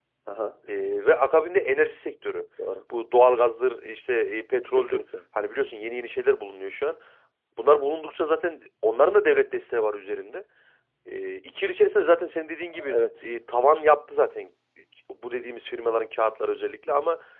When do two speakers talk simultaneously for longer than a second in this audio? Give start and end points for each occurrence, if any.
none

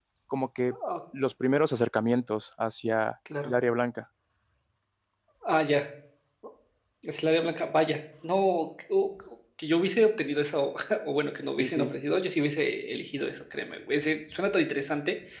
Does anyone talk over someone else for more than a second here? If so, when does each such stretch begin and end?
none

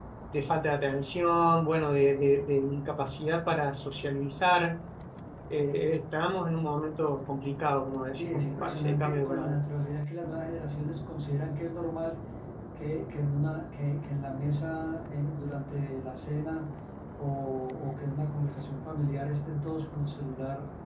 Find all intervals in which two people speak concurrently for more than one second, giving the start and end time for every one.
8.2-9.6

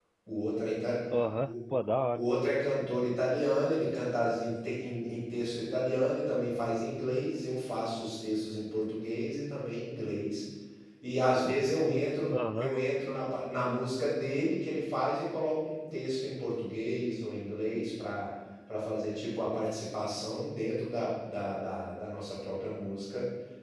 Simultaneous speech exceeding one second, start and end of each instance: none

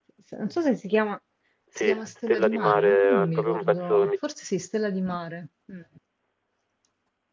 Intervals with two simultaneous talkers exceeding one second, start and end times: 1.8-4.1

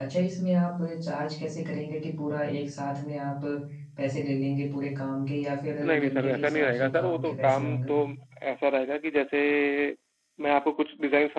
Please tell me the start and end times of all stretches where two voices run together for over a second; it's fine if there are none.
5.8-7.9

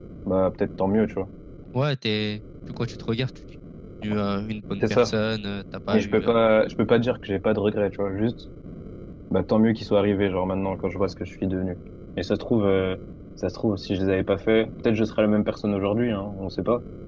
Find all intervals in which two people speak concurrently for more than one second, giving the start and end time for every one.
none

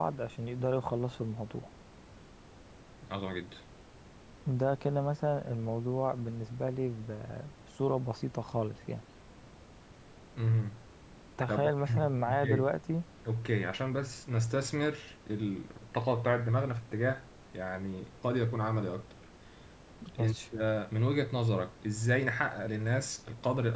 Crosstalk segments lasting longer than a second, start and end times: 11.5-12.7

